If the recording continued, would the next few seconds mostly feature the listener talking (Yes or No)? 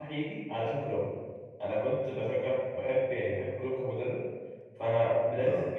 No